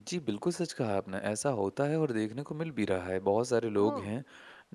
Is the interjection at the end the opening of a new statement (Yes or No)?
No